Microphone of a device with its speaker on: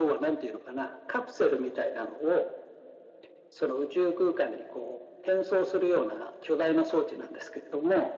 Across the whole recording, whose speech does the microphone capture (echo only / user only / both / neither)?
echo only